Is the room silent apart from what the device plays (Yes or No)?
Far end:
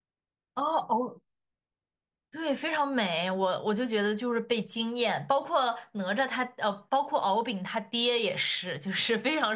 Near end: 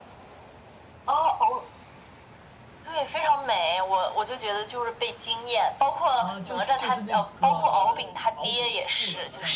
No